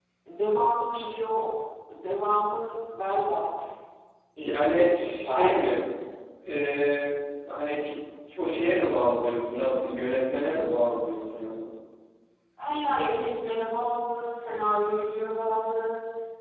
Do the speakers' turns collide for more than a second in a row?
Yes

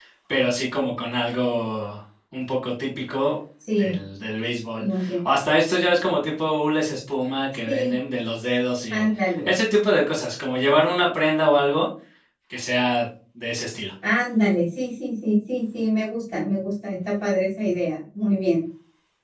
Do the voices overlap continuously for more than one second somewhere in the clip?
No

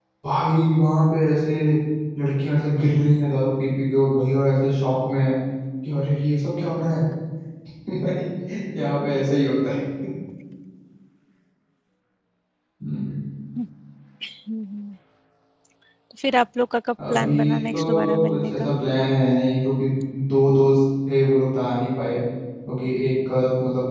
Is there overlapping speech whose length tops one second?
Yes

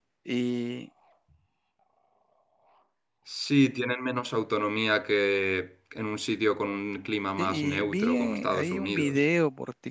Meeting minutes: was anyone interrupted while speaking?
Yes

